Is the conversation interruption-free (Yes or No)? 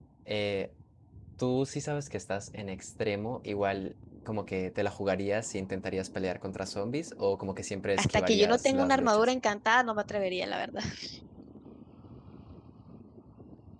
No